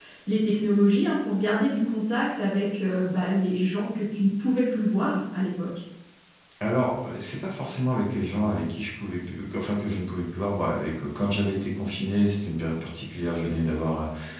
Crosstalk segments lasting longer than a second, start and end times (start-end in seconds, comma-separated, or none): none